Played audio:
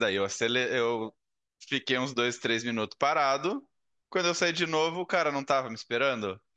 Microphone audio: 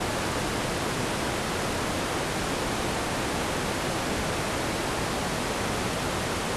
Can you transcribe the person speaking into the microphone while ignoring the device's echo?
none

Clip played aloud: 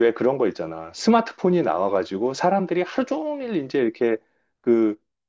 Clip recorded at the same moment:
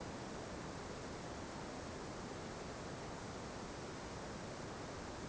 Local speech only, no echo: none

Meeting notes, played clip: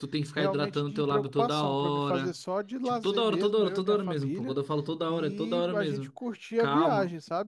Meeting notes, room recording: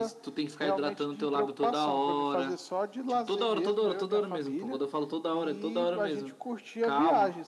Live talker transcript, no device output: none

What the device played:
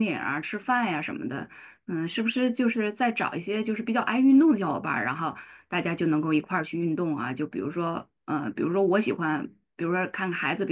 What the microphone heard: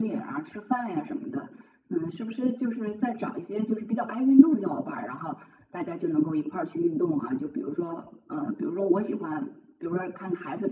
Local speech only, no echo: none

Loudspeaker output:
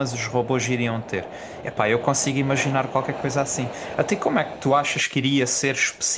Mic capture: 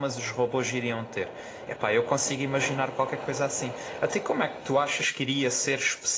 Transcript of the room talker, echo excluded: none

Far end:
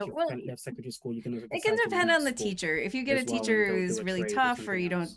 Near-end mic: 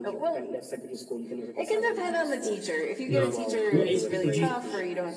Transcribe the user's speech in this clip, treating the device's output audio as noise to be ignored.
No. What age group did you teach?

